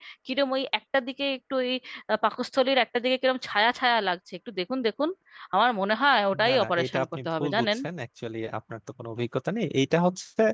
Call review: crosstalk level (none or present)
present